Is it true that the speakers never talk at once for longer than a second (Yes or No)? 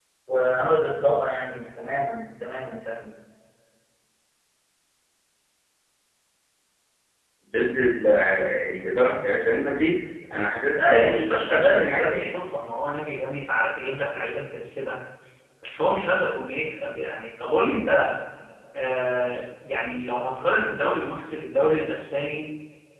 No